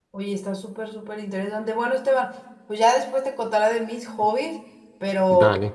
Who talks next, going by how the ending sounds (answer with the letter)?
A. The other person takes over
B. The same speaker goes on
B